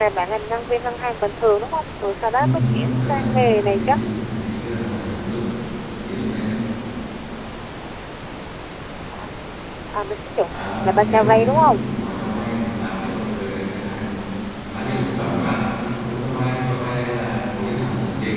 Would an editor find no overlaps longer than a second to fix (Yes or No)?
No